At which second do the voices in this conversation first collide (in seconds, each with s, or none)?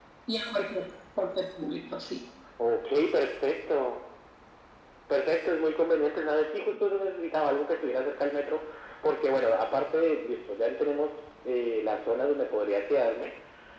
none